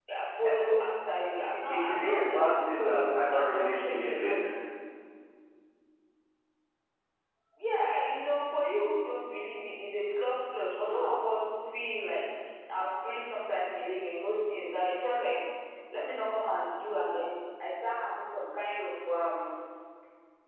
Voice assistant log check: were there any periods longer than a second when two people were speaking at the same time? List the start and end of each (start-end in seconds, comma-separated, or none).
1.7-4.2